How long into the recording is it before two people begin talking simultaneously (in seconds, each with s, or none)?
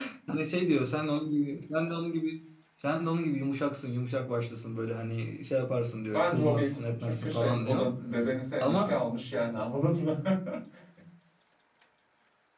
6.1 s